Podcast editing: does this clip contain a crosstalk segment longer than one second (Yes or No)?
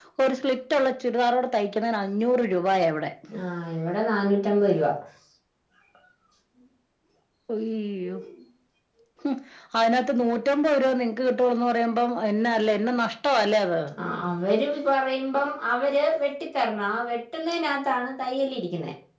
No